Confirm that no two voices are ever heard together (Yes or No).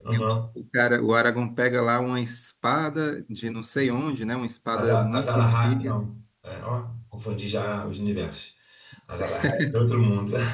No